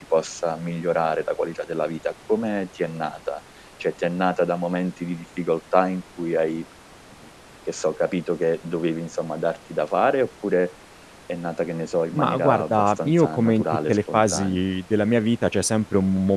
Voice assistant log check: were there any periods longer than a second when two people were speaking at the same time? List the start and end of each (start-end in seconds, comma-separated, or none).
12.1-14.6